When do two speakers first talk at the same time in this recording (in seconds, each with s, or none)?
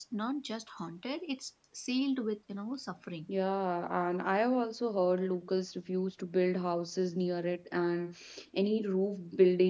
none